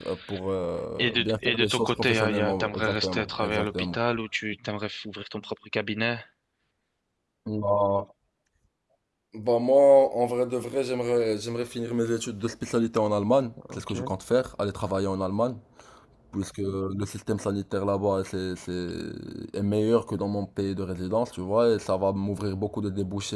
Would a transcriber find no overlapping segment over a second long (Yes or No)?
No